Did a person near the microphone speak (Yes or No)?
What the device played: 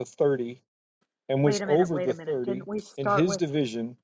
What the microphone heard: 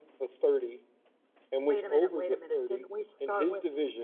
No